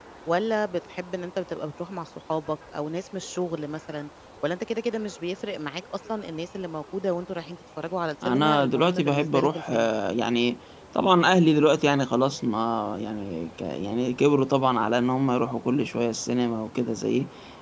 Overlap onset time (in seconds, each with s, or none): 8.2 s